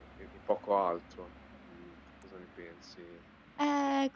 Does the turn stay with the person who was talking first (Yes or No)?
No